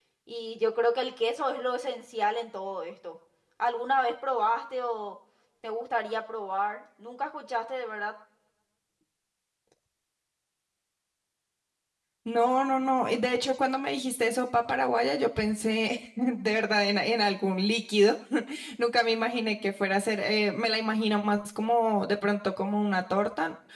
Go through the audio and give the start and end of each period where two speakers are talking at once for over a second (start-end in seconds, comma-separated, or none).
none